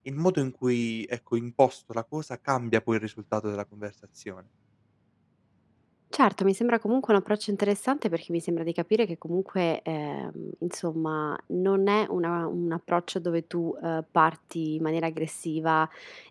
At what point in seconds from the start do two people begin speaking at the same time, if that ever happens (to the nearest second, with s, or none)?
none